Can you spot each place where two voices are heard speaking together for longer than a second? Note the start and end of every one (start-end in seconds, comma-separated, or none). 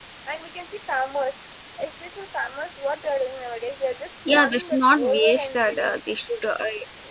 4.3-6.0